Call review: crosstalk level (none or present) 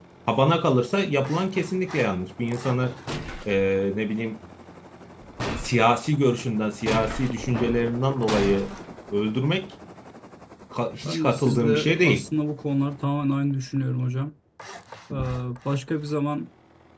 present